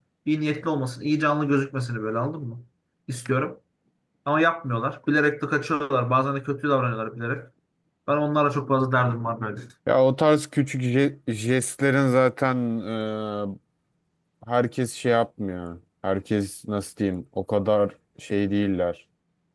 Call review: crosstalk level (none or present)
none